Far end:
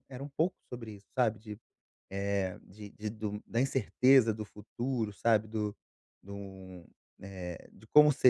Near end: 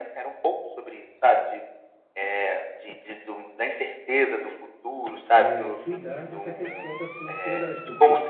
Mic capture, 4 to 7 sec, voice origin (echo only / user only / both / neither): both